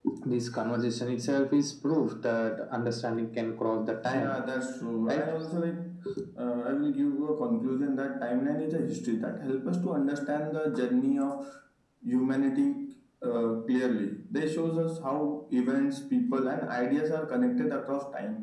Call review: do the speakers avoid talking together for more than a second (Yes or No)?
Yes